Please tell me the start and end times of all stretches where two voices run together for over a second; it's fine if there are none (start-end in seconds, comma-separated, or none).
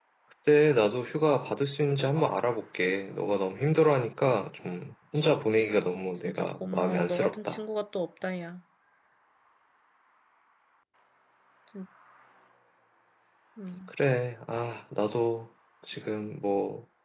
6.2-7.6